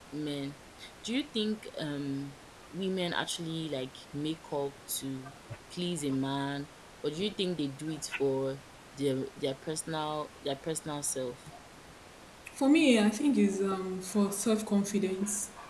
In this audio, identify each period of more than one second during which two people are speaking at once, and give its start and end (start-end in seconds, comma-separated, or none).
none